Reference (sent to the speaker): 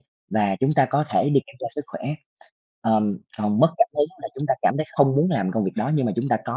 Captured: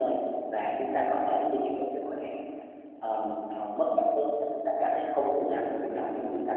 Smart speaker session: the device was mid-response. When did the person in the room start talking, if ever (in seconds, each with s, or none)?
none